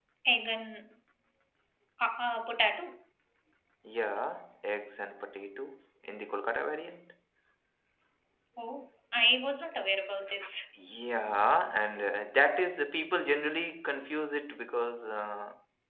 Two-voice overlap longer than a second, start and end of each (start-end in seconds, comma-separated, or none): none